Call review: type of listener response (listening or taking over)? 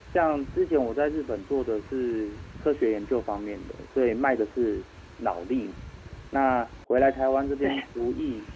listening